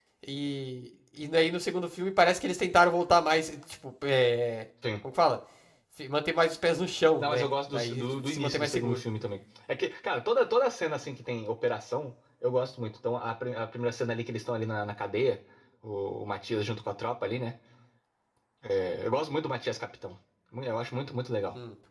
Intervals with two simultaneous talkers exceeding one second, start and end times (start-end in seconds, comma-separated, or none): 7.2-9.0